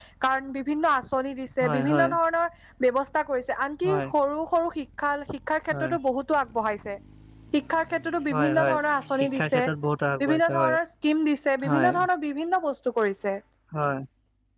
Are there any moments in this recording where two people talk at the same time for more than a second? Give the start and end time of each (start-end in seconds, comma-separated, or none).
none